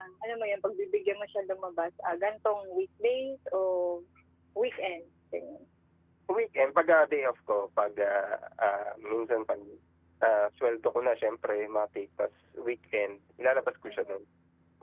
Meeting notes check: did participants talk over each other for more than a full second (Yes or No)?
No